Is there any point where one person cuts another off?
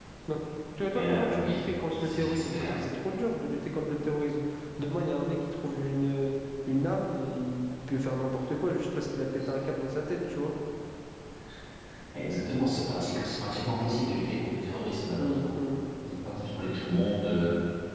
Yes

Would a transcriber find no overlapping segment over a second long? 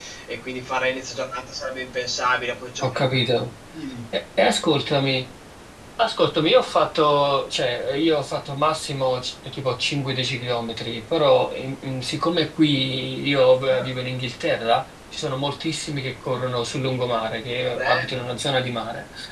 Yes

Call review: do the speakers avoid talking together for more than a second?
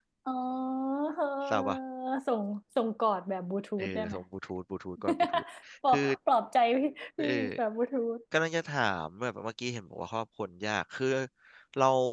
Yes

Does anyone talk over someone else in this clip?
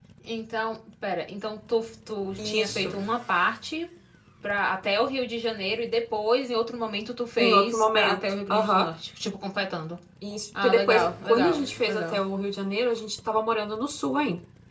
Yes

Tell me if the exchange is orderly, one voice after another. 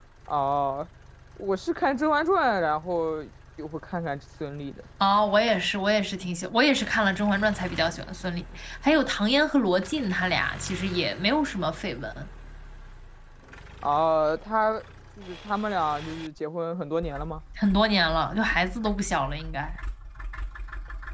Yes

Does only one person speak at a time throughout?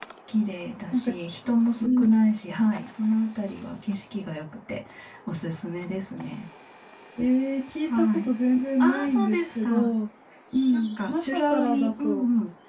No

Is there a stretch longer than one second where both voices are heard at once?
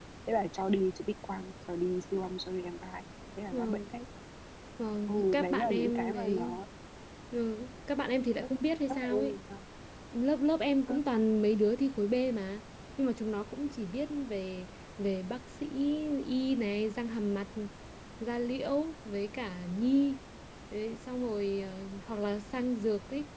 Yes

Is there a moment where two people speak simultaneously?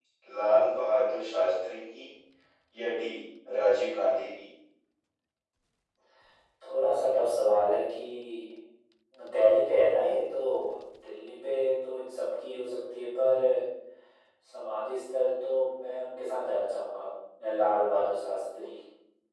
No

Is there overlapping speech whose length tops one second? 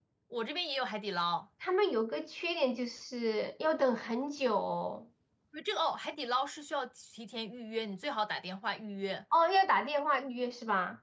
No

